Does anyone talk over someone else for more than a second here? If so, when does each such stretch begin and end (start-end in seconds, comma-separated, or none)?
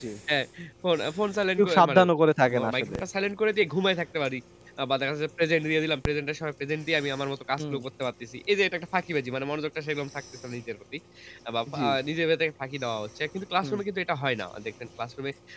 none